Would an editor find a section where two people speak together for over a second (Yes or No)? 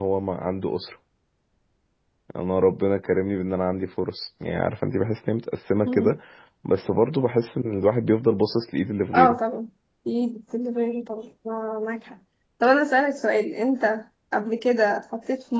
No